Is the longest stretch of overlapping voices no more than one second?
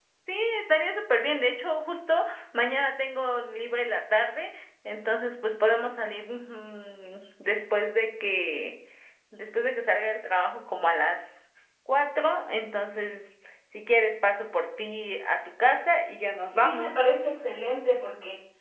Yes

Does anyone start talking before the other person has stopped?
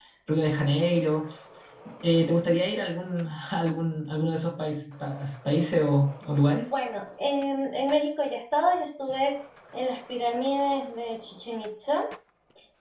No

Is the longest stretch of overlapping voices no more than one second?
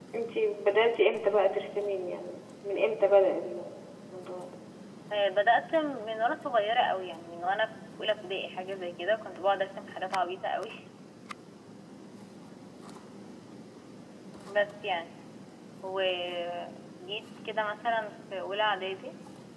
Yes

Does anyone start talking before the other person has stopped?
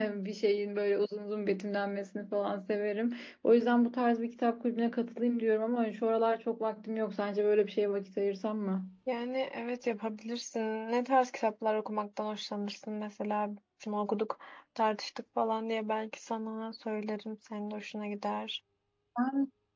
No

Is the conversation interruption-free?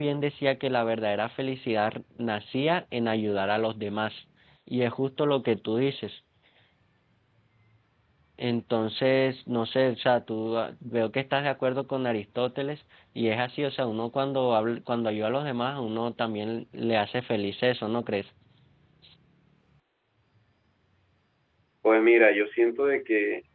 Yes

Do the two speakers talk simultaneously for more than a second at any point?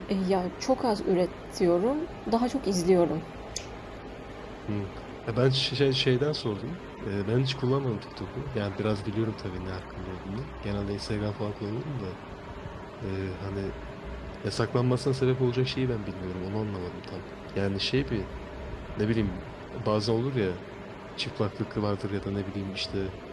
No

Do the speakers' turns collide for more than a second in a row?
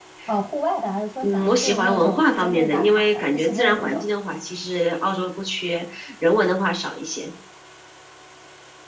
Yes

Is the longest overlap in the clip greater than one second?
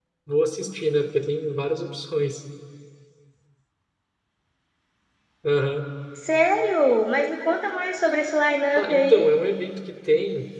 No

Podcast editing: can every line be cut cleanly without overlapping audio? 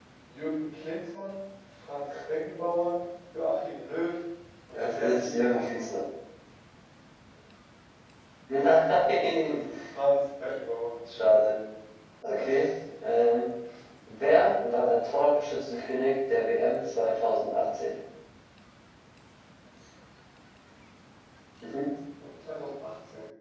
No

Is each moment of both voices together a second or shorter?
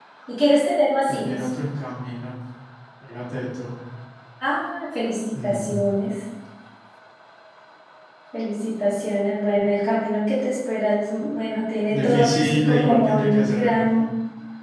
No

